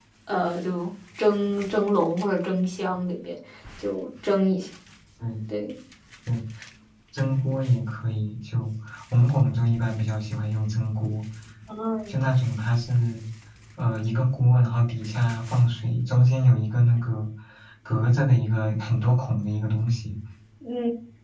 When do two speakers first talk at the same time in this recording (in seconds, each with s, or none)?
none